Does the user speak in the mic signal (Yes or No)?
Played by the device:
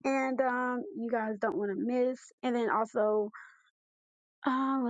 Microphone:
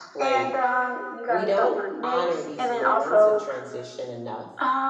Yes